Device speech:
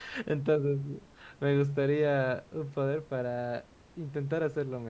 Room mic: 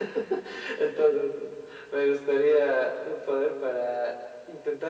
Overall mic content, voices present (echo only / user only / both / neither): echo only